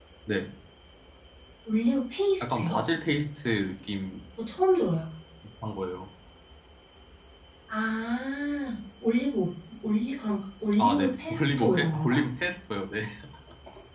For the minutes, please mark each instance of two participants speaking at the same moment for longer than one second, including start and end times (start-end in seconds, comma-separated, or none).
10.8-12.2